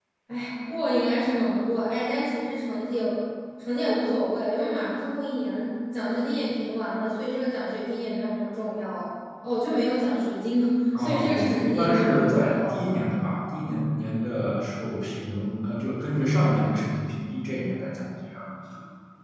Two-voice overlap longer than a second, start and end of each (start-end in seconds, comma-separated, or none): 11.0-13.0